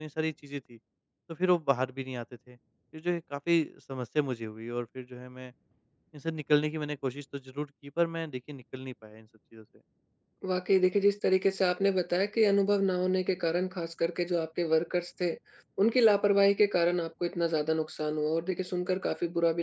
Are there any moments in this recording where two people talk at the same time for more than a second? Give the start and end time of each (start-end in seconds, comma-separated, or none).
none